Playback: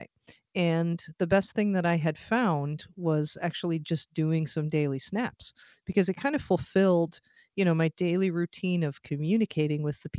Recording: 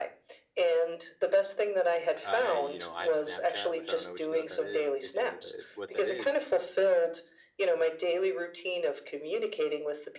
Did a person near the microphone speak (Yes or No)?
Yes